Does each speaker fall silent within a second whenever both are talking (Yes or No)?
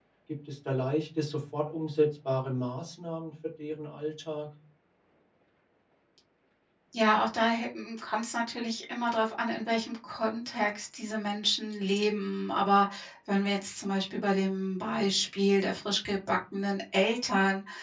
Yes